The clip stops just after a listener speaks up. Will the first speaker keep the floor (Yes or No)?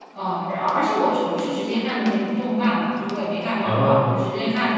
Yes